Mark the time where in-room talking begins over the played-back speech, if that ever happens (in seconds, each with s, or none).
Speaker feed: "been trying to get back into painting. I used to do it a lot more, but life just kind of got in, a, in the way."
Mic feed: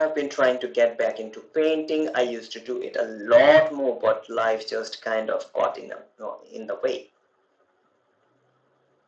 none